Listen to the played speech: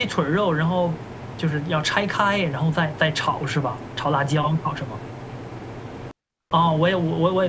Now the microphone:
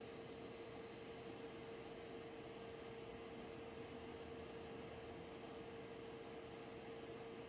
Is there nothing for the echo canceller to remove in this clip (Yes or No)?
Yes